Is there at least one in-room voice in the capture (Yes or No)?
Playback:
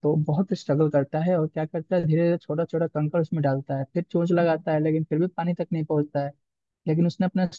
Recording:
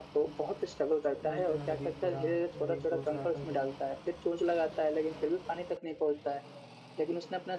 Yes